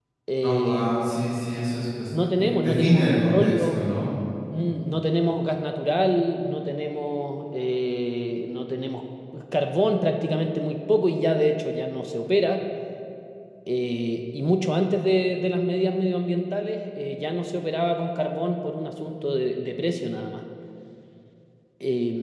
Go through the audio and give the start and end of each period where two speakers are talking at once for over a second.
2.4-3.8

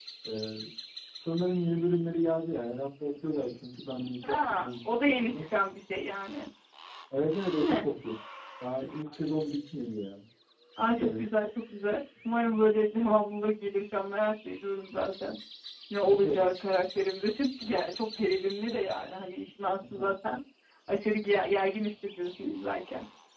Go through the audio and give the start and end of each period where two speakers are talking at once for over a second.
4.2-5.5

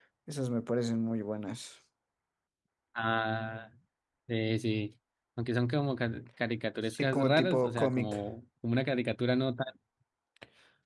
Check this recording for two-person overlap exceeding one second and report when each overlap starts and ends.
6.9-8.2

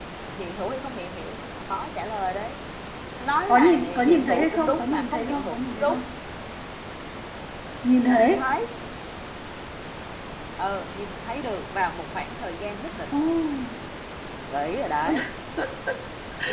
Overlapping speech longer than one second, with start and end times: 3.5-6.0

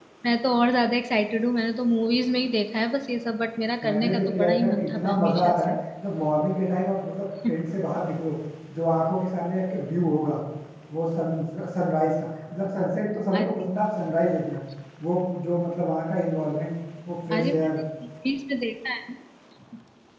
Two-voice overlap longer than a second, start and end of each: 3.8-5.7

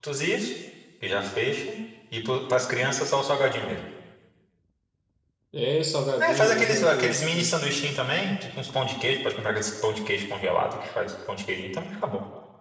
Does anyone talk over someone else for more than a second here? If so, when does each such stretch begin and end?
6.2-7.5

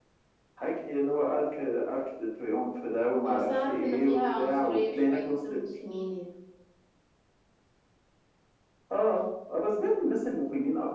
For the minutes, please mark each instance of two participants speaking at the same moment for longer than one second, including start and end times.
3.3-5.4

